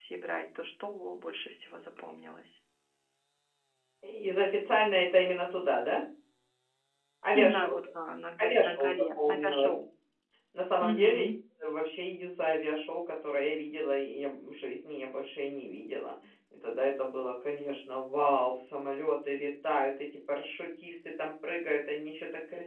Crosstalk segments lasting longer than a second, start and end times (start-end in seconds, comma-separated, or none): 8.4-9.7